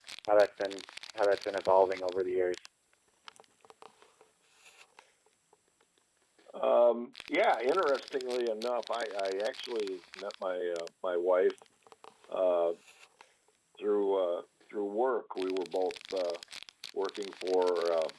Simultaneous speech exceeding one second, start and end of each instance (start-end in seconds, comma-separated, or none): none